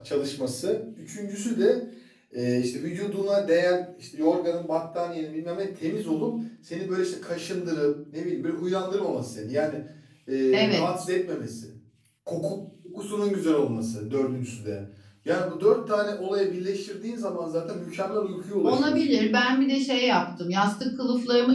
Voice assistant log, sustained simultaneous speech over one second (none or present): none